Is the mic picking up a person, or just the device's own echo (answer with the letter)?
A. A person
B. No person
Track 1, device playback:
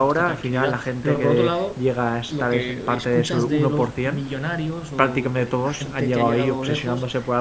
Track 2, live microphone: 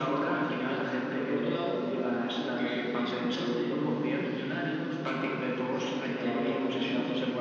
B